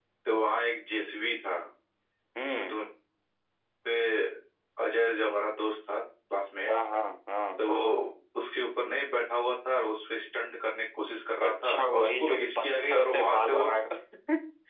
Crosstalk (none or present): present